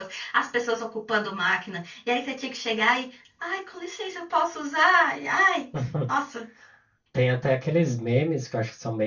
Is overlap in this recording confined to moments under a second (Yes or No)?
Yes